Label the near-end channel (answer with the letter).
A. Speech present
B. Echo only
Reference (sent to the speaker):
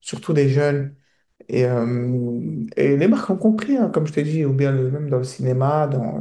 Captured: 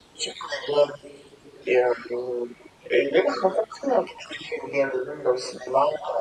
B